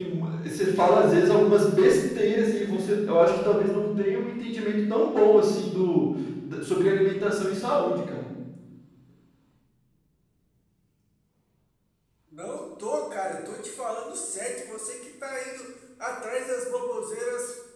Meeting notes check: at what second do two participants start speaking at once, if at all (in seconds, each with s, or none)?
none